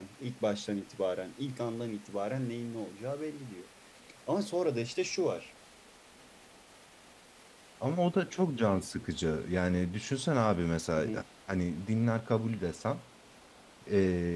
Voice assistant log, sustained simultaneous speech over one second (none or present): none